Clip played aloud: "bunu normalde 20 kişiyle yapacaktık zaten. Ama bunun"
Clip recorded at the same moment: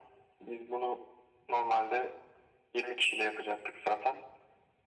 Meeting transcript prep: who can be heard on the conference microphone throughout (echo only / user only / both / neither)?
echo only